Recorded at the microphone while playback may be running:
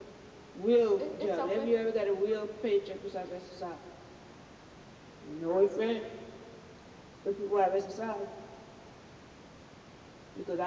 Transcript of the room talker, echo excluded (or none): It, it's open.